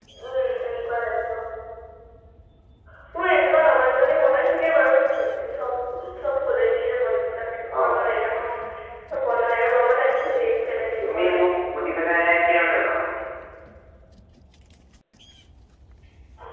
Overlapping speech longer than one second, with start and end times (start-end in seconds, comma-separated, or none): none